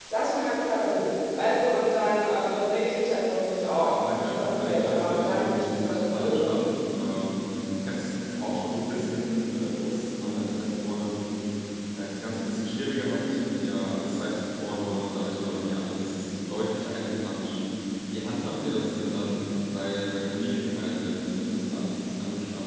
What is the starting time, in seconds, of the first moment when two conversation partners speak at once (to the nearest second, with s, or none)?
4 s